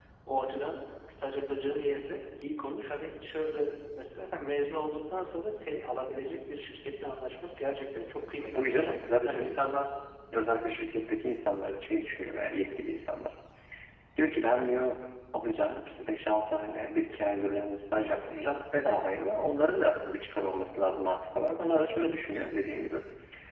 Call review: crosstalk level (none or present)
present